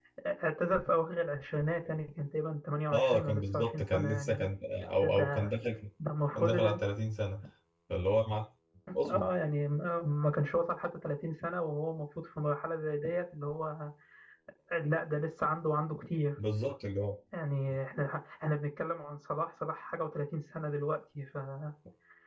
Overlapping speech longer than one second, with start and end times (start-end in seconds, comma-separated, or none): 2.9-4.5